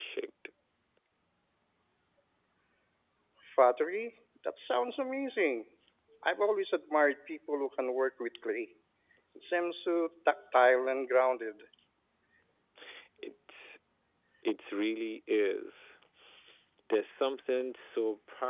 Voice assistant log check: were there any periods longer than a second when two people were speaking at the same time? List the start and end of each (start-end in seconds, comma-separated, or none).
none